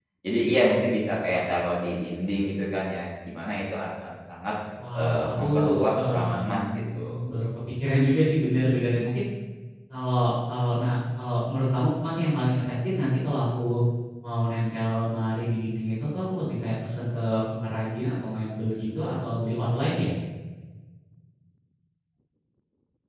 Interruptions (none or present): present